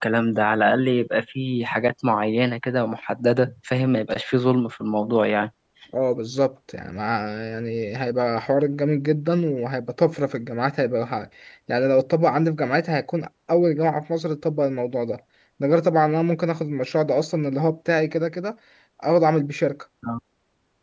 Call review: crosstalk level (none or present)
none